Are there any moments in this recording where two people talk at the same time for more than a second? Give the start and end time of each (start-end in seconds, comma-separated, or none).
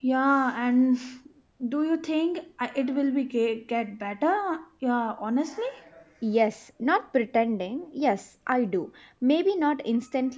none